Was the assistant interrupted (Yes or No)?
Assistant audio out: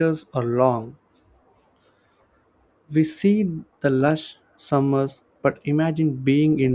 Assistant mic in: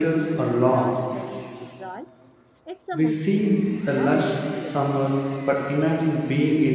Yes